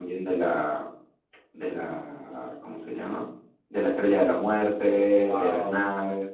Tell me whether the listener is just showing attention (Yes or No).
Yes